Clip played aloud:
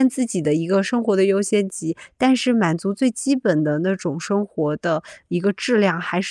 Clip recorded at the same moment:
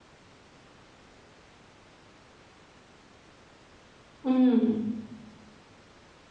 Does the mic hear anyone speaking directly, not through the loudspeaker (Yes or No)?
Yes